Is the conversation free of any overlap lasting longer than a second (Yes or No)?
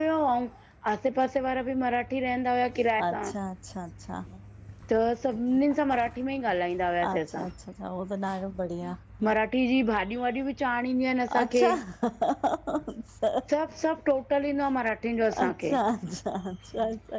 Yes